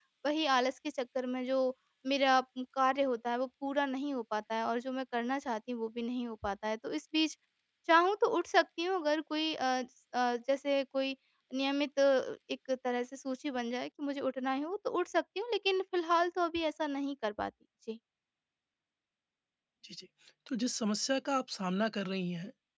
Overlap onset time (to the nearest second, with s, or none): none